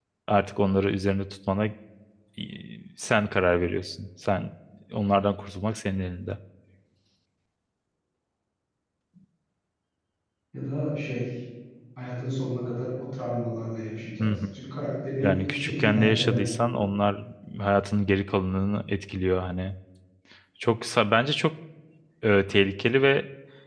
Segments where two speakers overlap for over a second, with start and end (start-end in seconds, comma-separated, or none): 15.2-16.6